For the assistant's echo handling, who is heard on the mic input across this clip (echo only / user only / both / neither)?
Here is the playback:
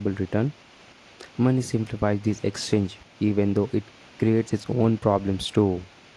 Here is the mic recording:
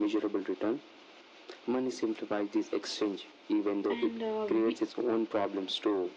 both